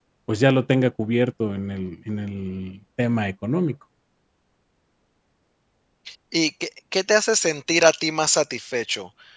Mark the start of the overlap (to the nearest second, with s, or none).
none